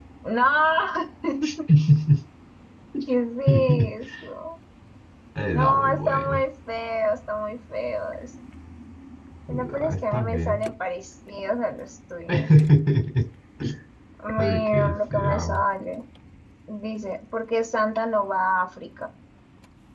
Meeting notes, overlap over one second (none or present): present